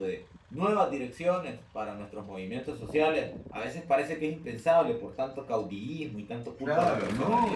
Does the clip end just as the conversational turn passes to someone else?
Yes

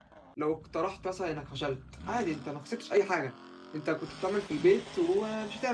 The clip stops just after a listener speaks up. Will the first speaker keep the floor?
Yes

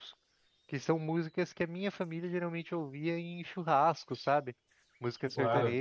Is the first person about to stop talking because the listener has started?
No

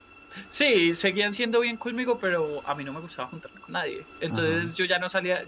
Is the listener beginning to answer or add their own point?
No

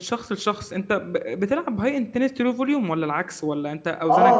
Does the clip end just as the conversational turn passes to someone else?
Yes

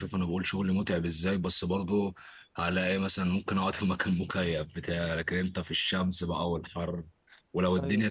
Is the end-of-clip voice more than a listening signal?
No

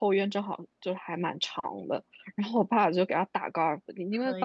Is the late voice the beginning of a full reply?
No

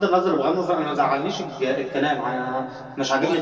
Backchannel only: Yes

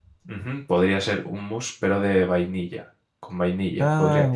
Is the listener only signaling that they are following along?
Yes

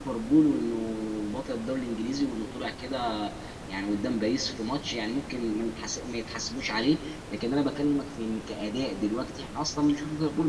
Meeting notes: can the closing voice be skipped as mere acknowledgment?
No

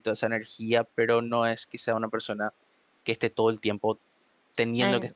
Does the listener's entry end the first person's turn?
Yes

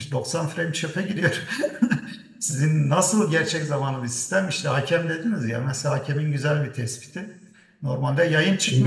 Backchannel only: Yes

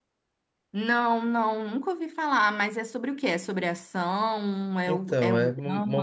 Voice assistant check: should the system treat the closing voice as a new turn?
Yes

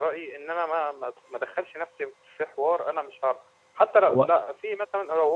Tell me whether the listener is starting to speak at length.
No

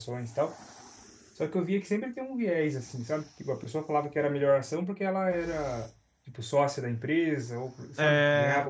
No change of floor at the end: No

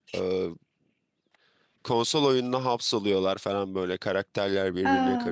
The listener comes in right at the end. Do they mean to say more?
No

